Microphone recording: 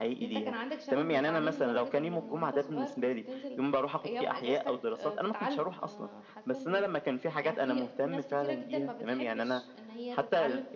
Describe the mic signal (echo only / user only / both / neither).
both